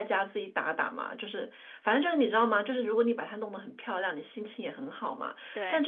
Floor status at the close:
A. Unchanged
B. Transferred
A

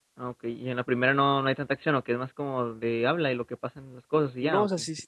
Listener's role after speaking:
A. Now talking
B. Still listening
A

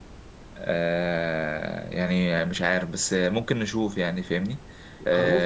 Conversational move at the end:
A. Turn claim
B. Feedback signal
B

